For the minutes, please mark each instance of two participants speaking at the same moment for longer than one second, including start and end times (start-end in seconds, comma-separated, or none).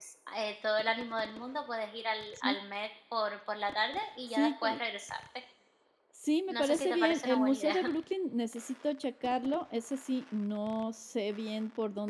6.5-7.8